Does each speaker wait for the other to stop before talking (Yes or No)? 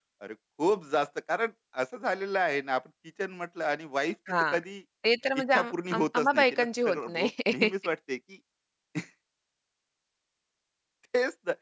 No